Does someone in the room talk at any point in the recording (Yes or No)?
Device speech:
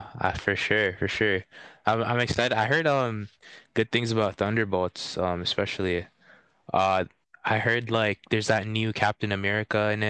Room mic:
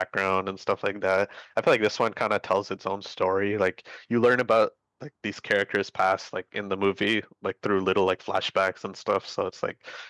Yes